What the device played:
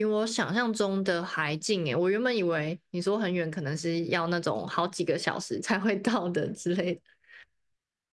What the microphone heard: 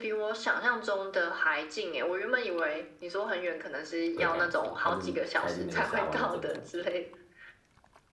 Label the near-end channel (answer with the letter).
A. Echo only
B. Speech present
B